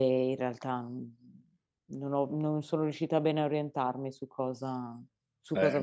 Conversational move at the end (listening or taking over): taking over